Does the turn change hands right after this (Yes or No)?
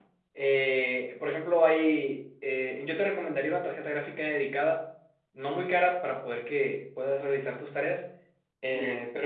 No